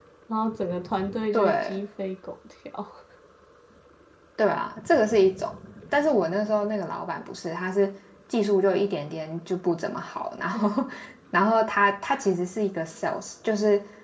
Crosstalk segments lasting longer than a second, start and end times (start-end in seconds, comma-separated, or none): none